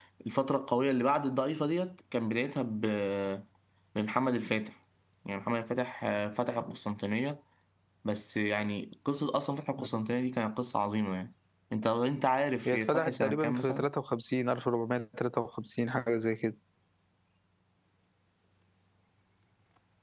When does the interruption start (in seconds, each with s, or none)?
12.7 s